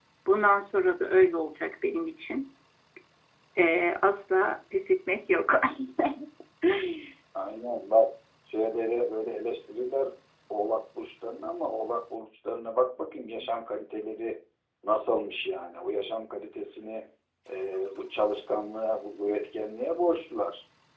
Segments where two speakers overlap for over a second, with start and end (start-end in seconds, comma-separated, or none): none